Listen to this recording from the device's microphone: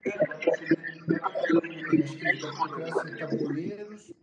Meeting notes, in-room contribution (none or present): present